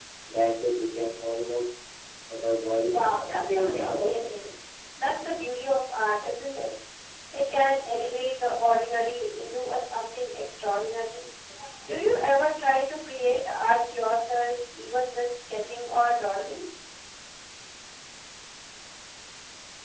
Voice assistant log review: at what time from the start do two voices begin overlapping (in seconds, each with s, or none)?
2.9 s